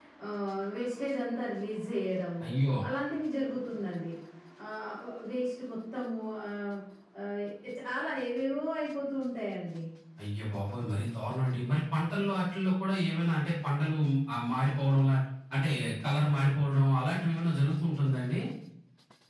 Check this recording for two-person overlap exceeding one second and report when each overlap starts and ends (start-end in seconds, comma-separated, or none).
none